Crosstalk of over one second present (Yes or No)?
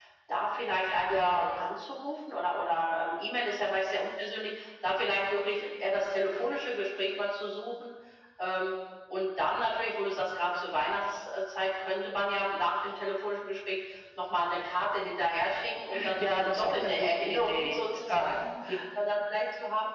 Yes